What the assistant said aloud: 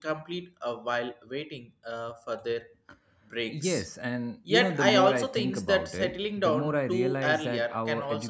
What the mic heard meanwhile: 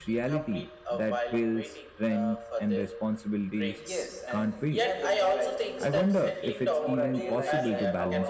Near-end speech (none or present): present